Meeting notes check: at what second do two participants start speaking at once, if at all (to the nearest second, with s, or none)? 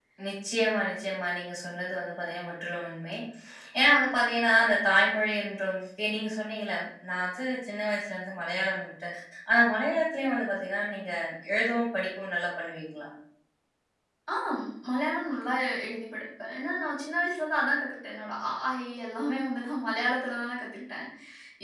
none